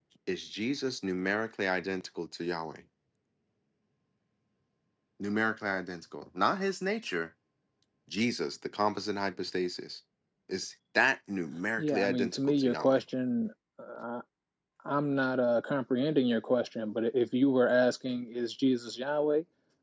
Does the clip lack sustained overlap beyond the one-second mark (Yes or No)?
No